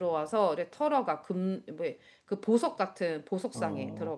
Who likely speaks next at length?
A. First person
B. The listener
B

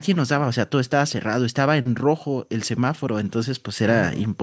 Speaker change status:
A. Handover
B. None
B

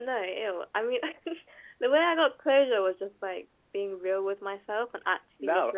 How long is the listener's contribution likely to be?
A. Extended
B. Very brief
A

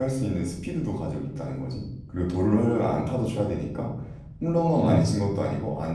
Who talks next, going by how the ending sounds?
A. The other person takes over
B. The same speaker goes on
B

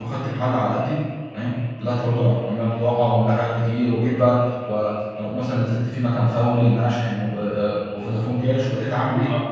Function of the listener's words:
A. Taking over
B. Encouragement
A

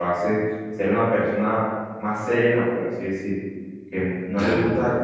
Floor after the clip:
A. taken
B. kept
B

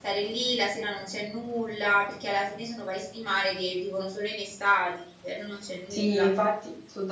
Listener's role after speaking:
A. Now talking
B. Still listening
A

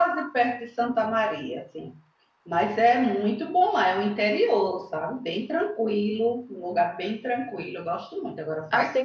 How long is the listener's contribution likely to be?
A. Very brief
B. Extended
B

